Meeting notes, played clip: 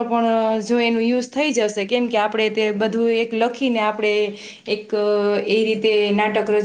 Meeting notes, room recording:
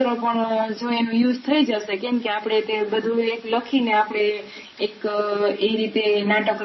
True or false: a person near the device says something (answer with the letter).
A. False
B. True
A